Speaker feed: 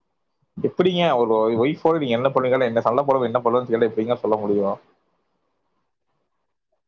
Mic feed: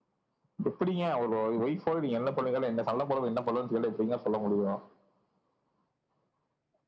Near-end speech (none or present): none